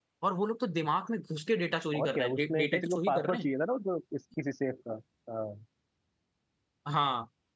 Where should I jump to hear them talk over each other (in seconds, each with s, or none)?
1.9 s